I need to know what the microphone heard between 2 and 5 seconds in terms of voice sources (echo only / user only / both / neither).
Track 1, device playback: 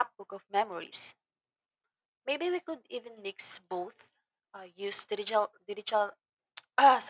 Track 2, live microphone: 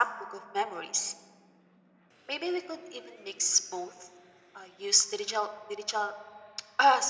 echo only